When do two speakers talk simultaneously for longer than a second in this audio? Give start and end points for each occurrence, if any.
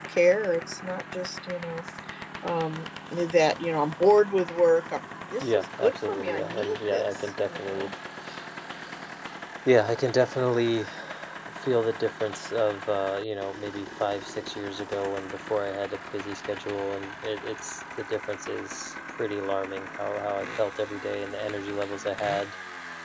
5.4-7.9

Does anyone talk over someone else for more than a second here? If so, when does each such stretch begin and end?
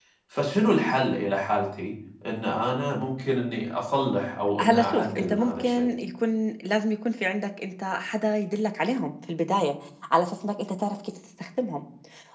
4.6-5.9

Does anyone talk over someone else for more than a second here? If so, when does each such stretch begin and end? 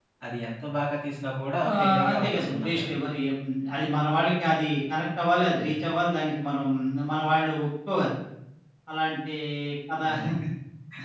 1.7-2.9

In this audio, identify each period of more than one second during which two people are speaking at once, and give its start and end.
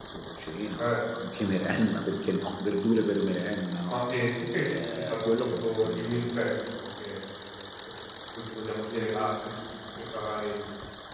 4.9-6.2

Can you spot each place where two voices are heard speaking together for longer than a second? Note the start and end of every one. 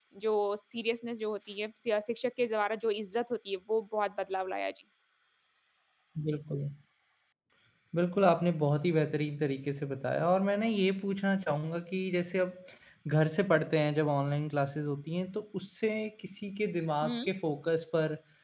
none

